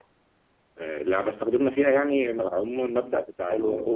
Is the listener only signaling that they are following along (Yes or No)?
Yes